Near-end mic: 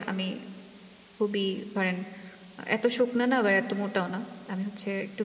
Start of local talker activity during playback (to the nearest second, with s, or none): none